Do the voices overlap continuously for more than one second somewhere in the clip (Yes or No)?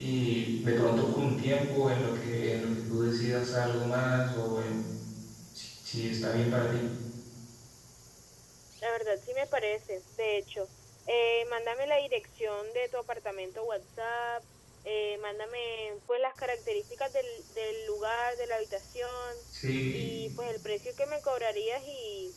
No